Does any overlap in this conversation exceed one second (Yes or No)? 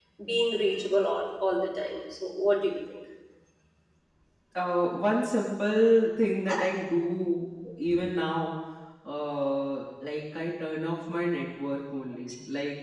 No